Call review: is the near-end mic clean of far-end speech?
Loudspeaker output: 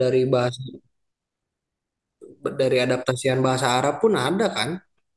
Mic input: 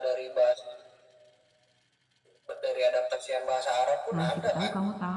No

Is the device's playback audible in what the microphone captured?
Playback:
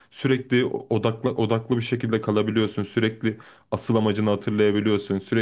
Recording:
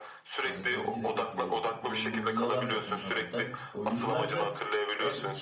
Yes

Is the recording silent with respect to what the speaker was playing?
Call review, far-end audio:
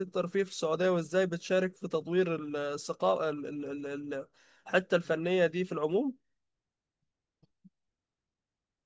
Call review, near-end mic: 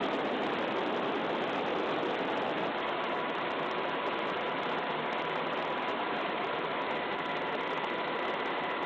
Yes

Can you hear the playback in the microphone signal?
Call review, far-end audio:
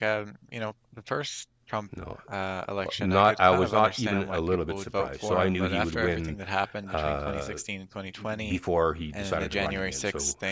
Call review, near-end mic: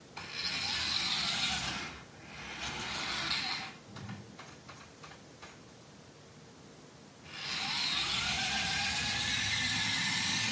No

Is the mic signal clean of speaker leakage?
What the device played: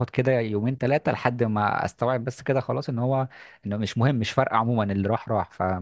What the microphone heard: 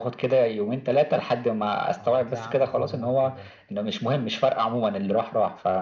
No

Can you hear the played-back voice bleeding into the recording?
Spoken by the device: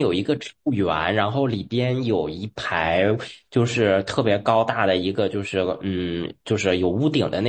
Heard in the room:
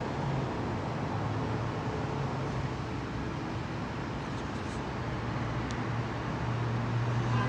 No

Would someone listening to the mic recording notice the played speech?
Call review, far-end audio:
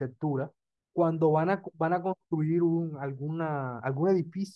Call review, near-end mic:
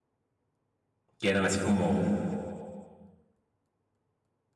No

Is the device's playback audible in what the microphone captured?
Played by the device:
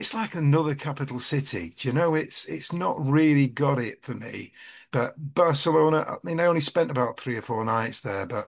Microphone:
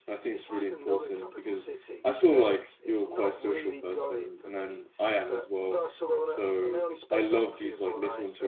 Yes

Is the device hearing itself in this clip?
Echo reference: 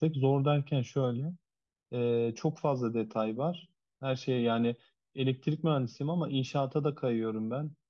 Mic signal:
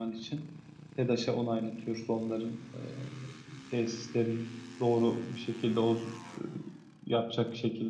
No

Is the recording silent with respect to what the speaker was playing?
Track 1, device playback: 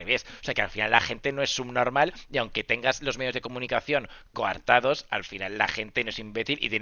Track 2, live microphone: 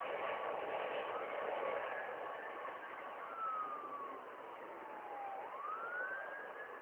Yes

